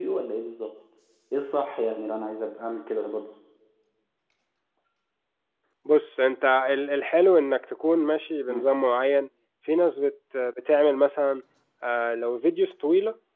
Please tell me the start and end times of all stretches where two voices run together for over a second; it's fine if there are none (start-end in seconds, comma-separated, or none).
none